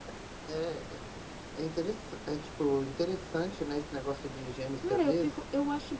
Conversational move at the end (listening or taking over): taking over